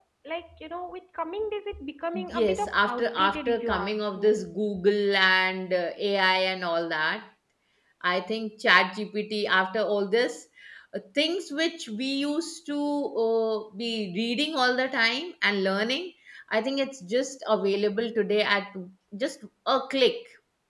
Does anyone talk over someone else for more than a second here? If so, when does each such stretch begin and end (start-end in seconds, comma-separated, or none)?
2.3-4.4